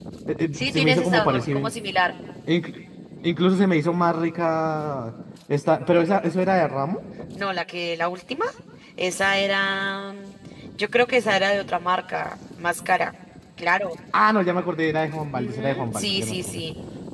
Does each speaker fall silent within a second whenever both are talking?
No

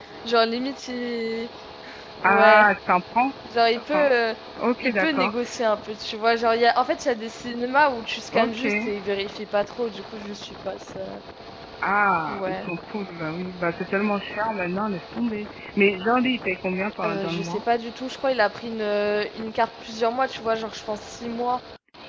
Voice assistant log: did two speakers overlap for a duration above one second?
No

